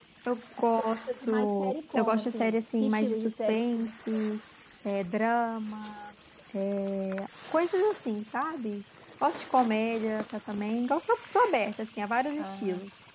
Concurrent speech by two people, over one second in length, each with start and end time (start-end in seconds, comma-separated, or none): 0.8-3.9